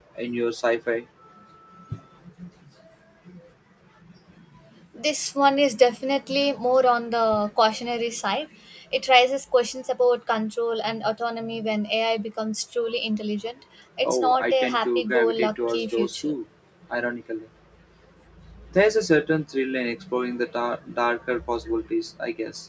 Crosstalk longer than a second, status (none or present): present